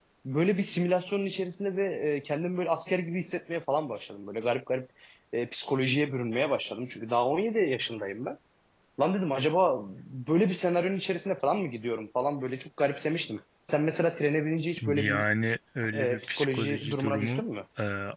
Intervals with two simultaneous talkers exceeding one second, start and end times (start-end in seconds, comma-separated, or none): 15.9-17.4